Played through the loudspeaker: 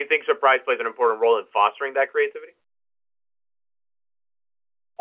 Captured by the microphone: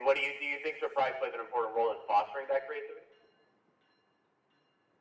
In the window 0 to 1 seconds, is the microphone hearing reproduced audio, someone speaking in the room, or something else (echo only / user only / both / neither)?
echo only